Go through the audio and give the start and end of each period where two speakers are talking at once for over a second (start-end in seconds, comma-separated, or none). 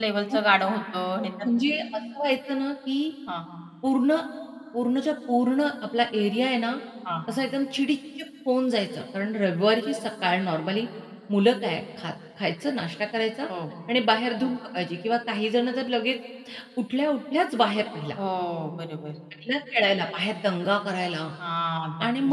none